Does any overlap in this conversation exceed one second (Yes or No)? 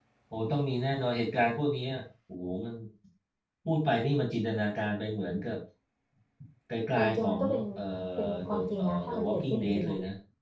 Yes